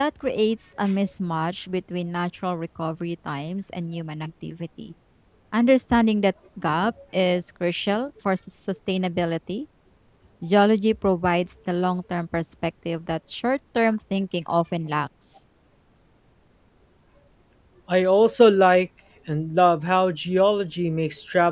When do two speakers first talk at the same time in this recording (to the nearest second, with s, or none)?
none